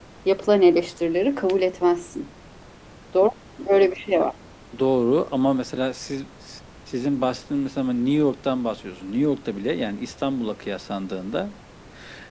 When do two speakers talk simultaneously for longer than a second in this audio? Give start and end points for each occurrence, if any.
none

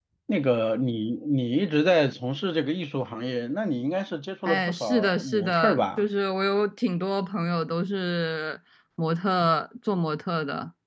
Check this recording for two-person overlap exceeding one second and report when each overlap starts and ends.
4.5-6.0

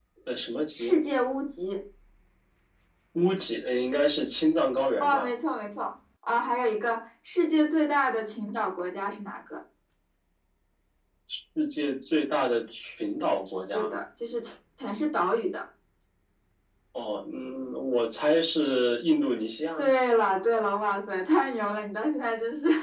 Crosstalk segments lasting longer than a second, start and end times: none

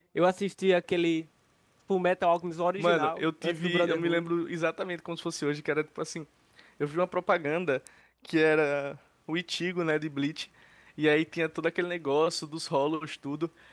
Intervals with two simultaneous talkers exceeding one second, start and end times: 2.8-4.3

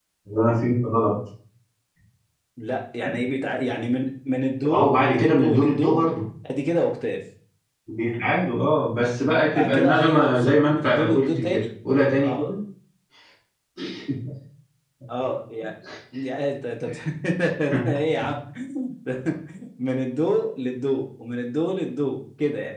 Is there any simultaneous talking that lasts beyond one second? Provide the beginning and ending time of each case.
4.7-6.0, 9.5-11.6

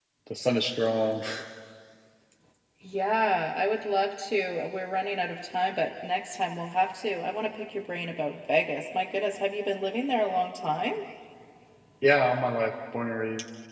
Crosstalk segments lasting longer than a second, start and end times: none

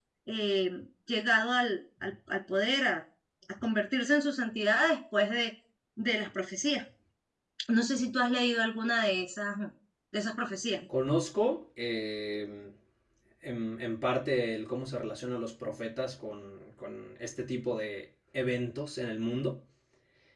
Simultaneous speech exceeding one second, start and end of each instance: none

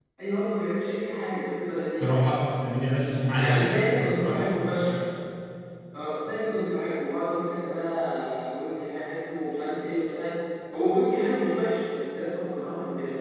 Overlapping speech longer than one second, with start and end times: none

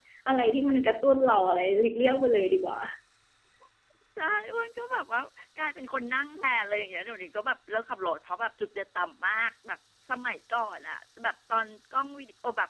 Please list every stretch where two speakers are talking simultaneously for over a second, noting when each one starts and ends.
none

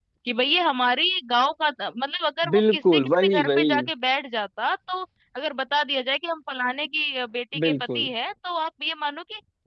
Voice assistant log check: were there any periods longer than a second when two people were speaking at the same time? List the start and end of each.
2.5-3.7

